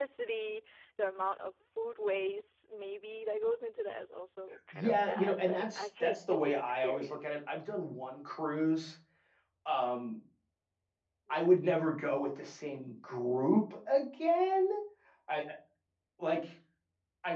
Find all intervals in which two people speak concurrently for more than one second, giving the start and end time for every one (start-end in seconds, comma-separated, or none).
4.7-7.3